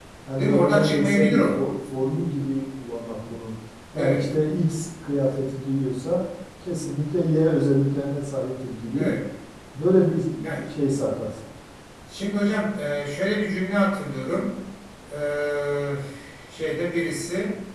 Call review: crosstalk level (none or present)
present